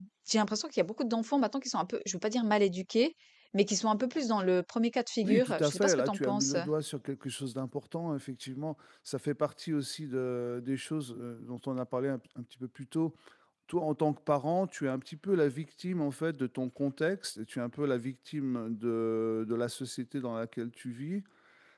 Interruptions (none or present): present